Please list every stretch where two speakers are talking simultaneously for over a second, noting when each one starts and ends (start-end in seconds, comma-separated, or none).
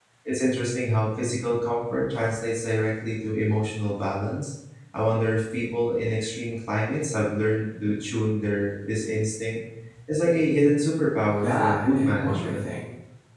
11.4-12.7